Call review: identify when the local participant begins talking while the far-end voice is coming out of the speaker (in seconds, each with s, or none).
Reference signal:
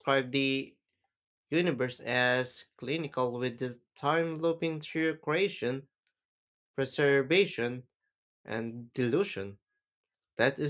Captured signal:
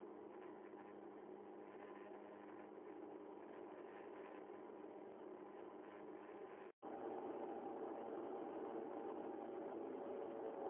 none